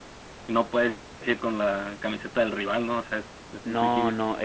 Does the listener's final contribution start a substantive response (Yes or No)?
Yes